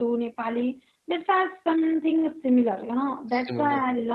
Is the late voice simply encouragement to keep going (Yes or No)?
Yes